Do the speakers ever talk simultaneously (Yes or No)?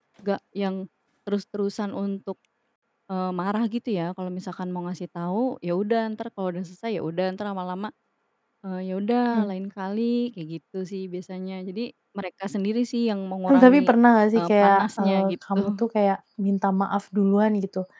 Yes